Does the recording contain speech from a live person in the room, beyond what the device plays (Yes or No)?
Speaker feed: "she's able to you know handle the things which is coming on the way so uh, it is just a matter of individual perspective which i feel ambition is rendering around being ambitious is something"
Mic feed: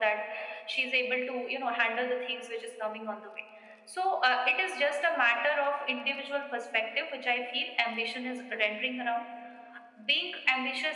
No